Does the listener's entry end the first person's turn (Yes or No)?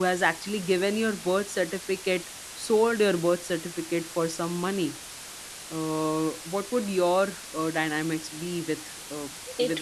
Yes